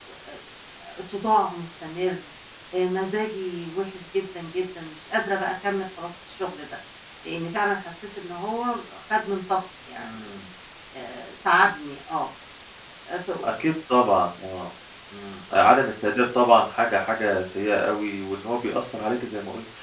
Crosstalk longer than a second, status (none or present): none